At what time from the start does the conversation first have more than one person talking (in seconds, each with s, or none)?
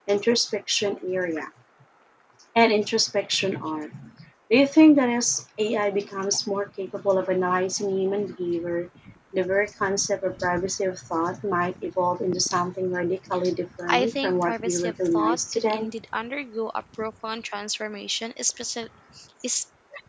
13.9 s